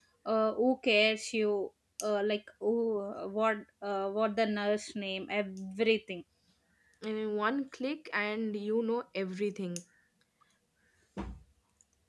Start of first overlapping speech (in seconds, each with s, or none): none